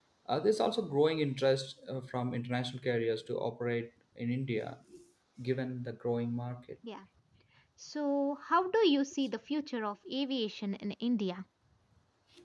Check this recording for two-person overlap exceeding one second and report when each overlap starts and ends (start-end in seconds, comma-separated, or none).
none